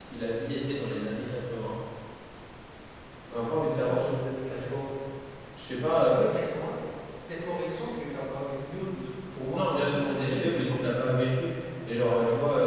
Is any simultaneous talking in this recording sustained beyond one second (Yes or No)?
Yes